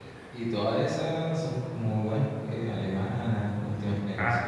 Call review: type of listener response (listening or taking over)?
taking over